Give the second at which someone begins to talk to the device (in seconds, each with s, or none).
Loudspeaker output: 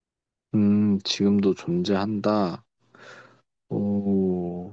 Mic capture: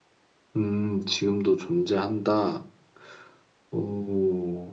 none